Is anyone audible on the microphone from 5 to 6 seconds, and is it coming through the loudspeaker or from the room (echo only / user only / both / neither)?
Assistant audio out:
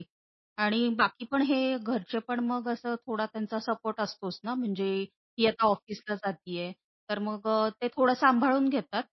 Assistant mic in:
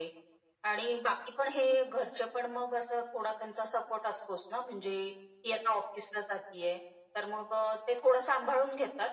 echo only